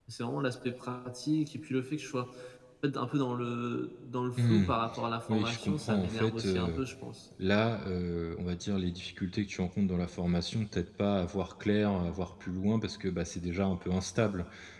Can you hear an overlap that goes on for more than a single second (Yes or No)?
Yes